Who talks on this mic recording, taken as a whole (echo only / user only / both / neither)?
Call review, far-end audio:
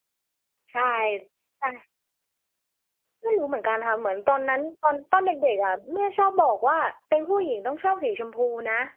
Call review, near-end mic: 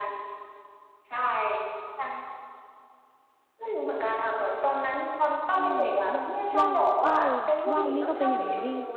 both